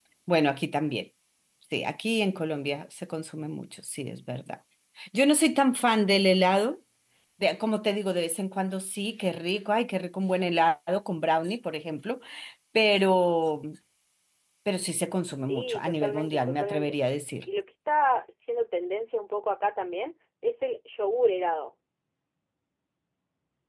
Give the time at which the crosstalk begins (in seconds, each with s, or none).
15.4 s